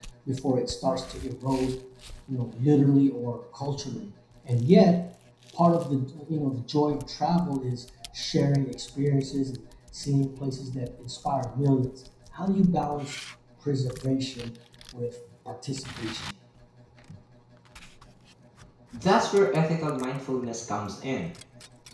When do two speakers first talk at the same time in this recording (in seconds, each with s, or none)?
none